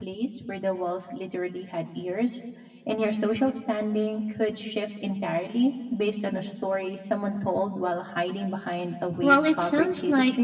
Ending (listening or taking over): taking over